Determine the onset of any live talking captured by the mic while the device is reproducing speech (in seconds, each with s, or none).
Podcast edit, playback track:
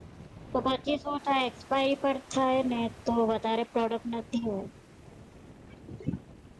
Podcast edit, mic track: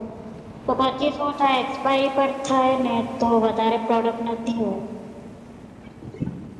none